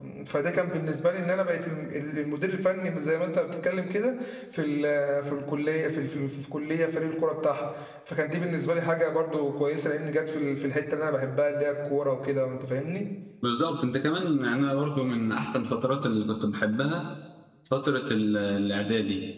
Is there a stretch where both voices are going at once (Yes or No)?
No